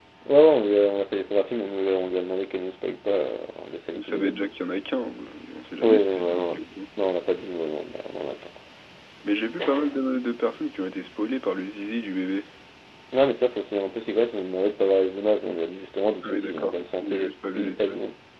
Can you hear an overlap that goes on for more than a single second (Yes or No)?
Yes